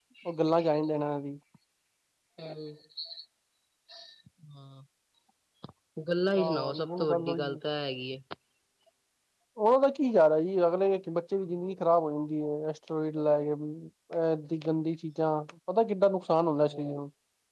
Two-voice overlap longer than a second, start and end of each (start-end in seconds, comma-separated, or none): 6.4-7.6